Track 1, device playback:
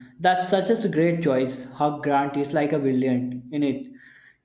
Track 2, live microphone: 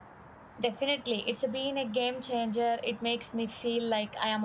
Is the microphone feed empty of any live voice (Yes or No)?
No